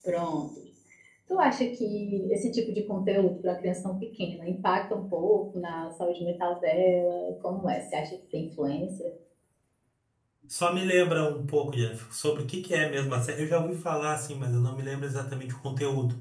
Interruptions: none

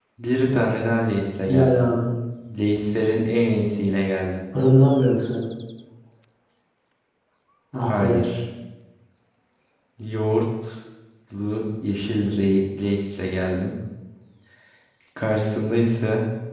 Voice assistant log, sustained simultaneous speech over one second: none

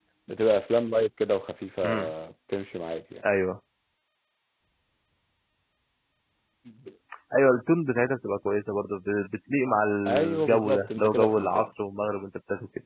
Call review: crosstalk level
present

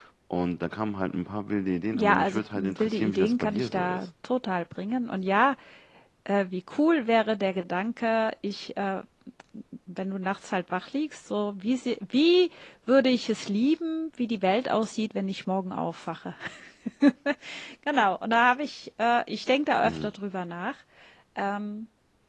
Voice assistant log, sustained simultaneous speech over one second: present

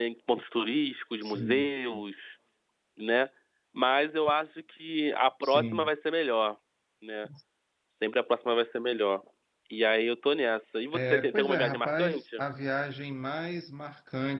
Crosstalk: present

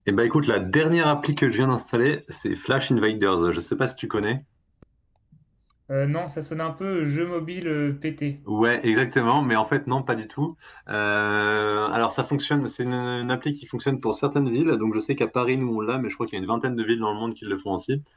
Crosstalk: none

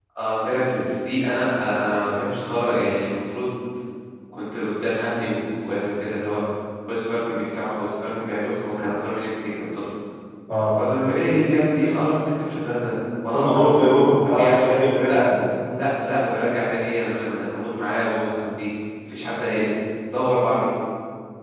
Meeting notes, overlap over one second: present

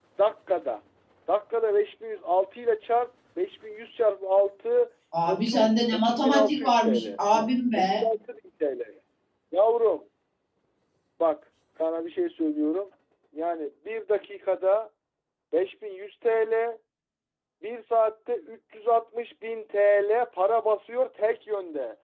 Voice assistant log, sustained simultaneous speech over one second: present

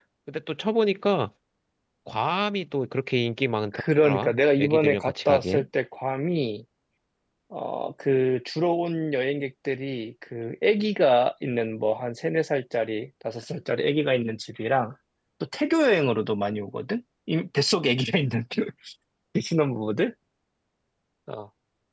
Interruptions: present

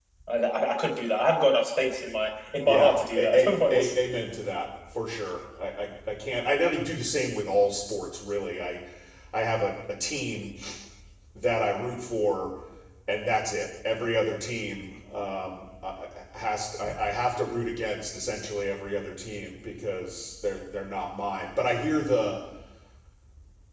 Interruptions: present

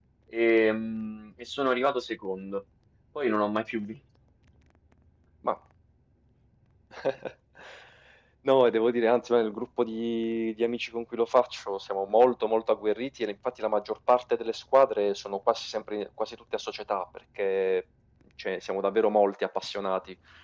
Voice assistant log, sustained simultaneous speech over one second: none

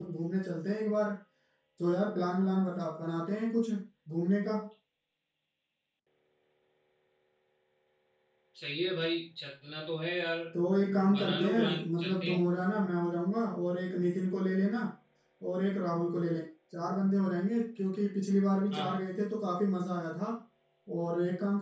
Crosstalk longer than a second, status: present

